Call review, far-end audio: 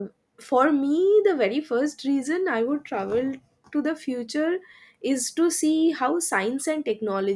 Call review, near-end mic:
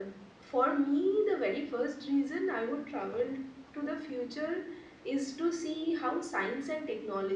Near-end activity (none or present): none